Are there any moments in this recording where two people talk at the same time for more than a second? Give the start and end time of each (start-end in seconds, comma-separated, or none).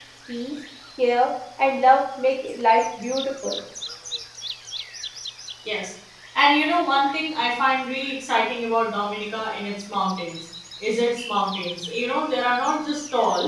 none